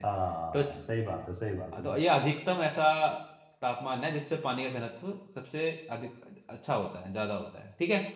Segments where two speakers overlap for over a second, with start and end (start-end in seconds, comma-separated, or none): none